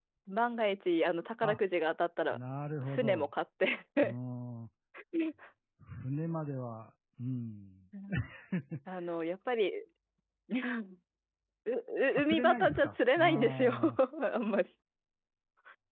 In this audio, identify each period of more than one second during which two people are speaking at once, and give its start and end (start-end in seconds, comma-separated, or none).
12.2-13.7